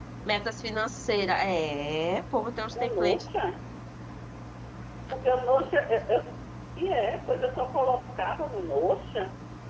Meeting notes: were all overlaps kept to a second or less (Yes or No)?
Yes